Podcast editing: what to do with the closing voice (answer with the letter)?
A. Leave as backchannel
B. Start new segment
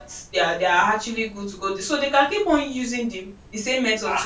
B